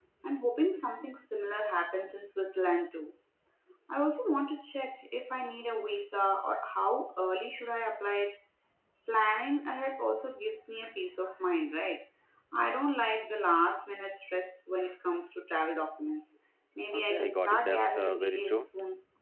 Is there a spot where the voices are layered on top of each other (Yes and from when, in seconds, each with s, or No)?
Yes, from 16.9 s